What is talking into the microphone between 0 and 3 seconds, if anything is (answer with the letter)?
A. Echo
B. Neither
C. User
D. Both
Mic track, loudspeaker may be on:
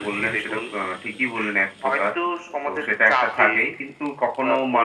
D